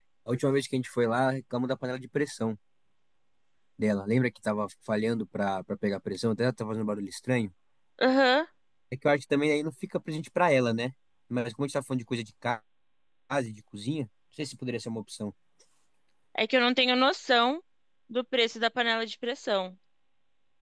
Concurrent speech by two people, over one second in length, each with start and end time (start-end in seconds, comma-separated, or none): none